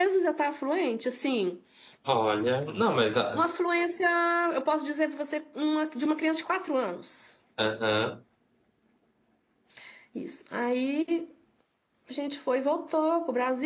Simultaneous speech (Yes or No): No